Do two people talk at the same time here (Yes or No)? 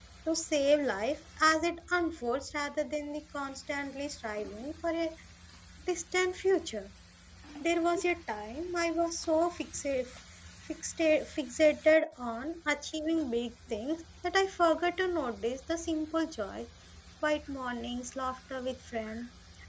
No